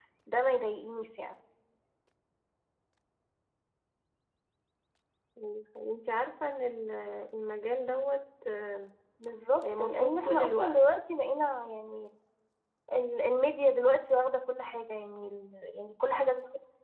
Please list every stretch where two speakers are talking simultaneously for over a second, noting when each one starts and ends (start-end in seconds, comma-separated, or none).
9.6-10.8